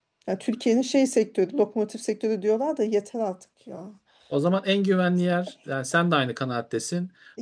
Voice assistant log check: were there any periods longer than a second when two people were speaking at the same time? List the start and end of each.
none

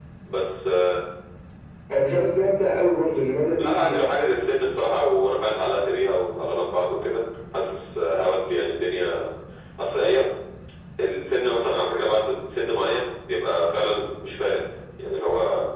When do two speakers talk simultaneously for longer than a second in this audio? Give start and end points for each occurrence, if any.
none

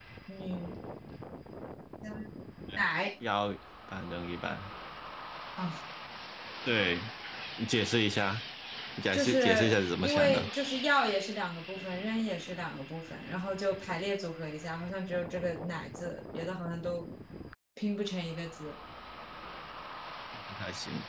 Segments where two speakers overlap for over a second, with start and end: 9.1-10.4

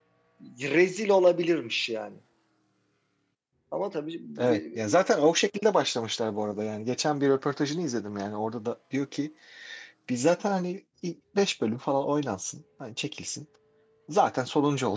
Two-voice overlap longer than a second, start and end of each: none

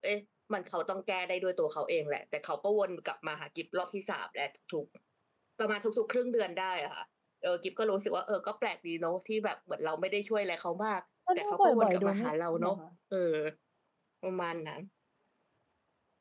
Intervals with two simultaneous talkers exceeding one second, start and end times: 11.4-12.8

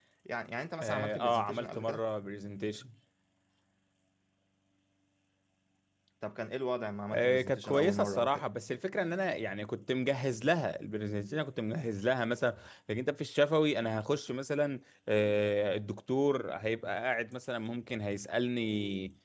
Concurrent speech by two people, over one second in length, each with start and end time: 0.8-2.0, 7.1-8.4

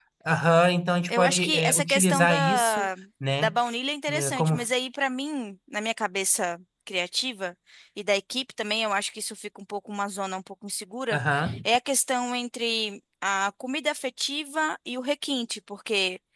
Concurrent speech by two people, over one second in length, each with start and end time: 1.1-2.9

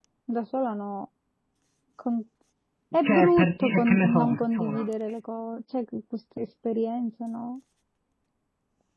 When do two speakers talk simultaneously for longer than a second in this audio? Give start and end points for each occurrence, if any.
3.0-4.8

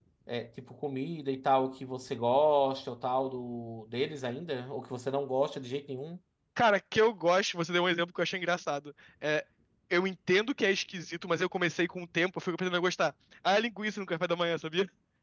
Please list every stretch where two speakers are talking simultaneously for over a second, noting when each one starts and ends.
none

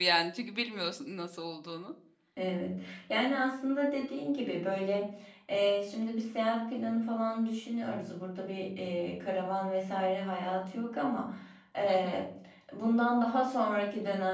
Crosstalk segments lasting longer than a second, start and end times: none

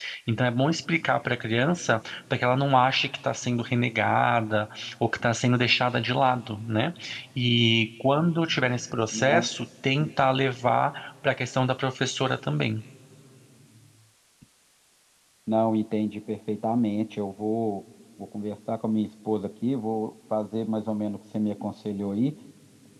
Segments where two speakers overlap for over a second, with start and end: none

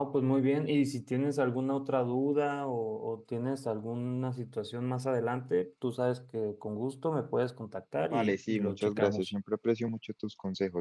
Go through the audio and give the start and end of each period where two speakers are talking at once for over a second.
8.1-9.3

